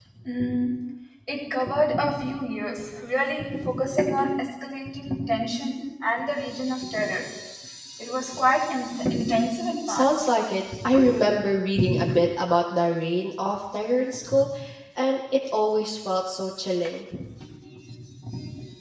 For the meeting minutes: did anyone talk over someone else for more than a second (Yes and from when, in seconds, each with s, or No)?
No